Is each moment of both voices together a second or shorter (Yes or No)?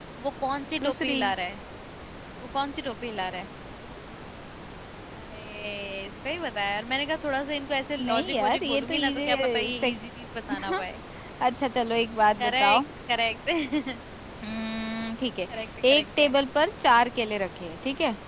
No